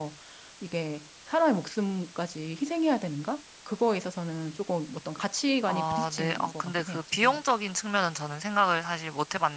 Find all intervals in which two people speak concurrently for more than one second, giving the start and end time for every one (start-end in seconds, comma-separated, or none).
5.7-7.4